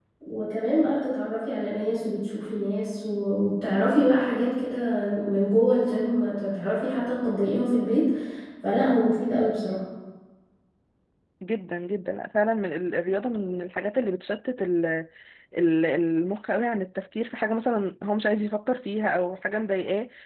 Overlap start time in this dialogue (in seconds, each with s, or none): none